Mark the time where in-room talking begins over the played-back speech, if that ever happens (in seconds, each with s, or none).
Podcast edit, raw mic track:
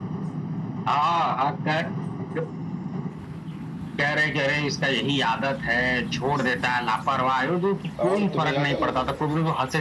8.0 s